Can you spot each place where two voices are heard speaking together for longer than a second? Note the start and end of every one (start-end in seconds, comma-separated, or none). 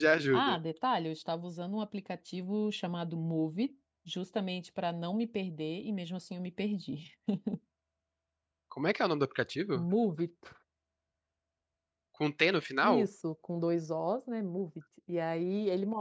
none